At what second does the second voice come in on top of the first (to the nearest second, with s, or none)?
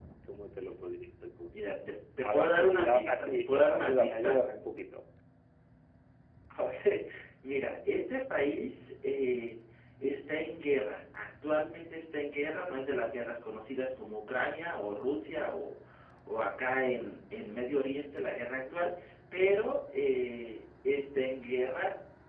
2 s